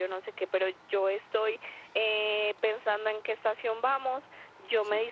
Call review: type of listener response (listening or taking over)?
listening